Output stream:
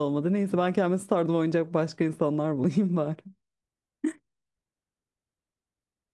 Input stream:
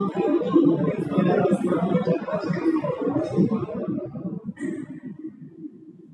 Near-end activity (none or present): none